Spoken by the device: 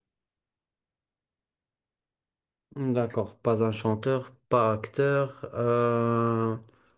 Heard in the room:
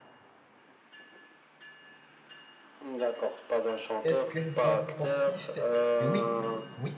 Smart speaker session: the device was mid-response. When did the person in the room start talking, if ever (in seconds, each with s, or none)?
4.0 s